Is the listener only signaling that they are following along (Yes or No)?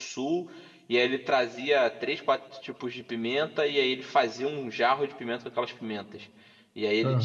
Yes